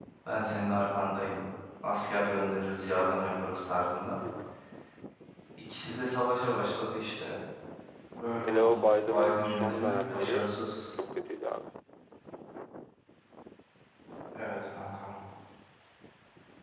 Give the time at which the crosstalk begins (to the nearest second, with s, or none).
8 s